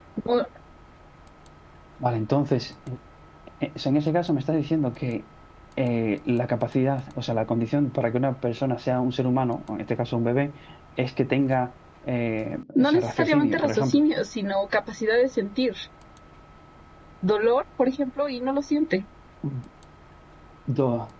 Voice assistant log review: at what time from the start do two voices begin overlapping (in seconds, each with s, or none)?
12.8 s